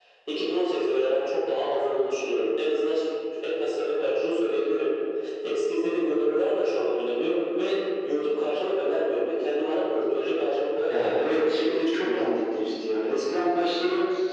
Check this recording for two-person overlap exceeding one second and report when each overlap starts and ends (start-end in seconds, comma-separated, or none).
10.9-12.2